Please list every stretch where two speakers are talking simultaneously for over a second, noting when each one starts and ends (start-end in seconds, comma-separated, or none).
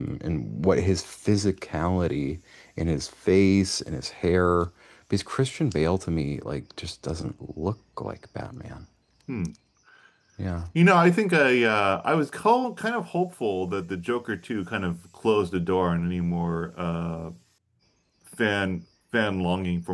none